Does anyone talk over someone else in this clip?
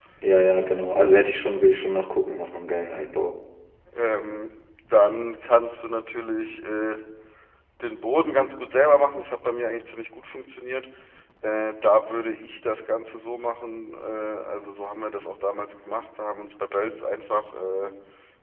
No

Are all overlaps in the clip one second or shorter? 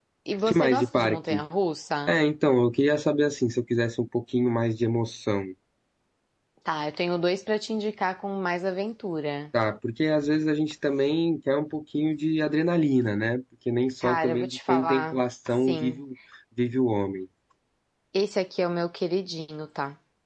No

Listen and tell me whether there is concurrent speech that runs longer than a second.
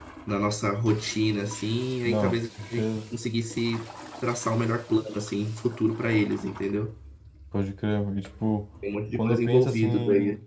Yes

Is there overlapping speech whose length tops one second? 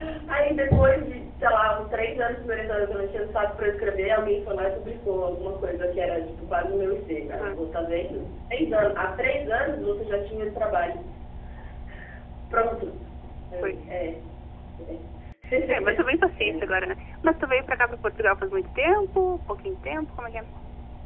No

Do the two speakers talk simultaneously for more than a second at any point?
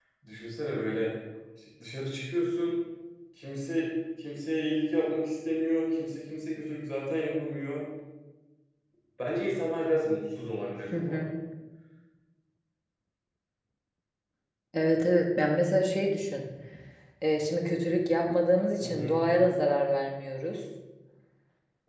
No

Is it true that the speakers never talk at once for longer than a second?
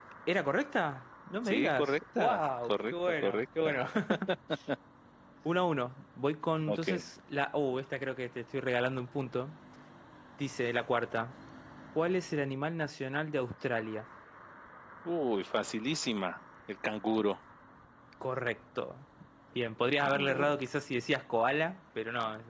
No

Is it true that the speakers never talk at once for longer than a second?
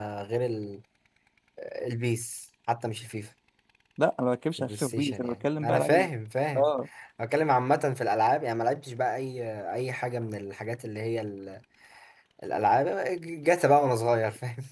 No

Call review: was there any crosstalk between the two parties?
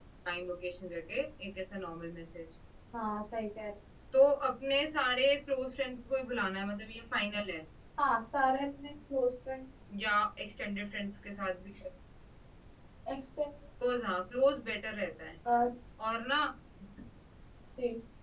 No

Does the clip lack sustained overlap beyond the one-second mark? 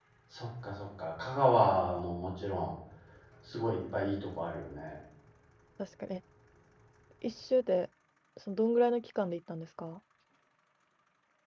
Yes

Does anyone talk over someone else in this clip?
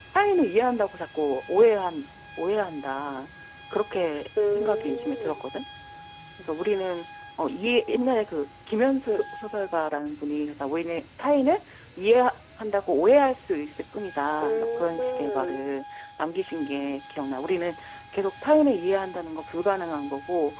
Yes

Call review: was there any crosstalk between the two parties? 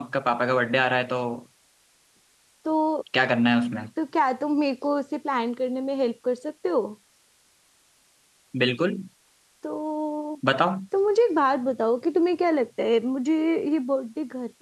No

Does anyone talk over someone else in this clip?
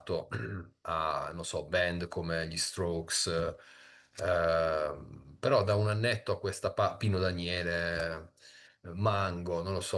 No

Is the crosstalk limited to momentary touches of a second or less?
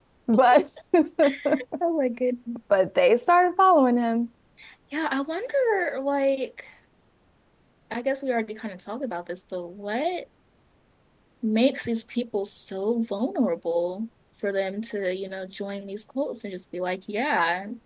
Yes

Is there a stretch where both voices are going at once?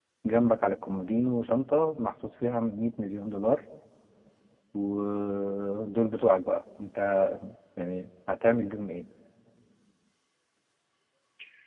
No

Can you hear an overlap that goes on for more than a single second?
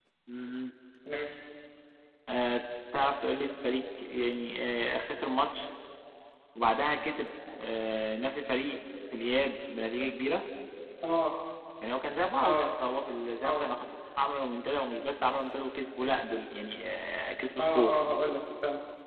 No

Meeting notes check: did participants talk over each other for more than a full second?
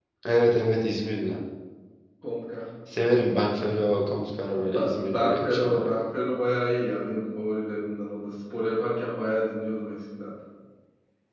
Yes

